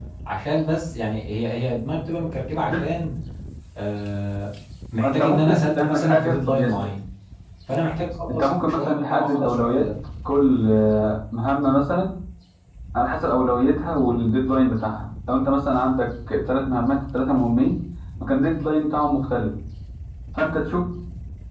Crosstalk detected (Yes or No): Yes